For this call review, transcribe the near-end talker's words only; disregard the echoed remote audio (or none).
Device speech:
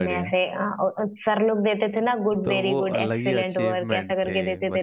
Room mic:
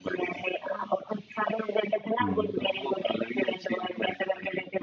हम्म